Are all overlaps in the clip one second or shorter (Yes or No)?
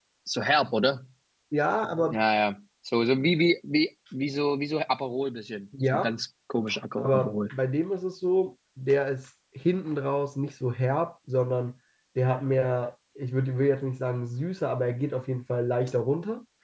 Yes